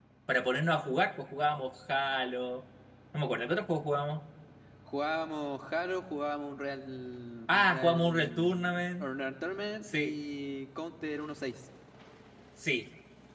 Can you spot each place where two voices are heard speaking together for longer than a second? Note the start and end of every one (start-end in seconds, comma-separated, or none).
7.5-9.0